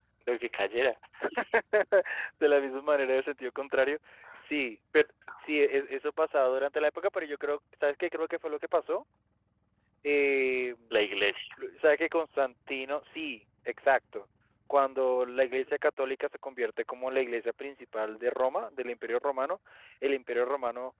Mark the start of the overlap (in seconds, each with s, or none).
none